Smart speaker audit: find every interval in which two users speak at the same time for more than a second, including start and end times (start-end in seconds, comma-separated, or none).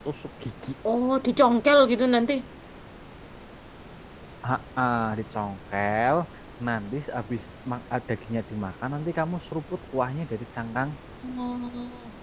none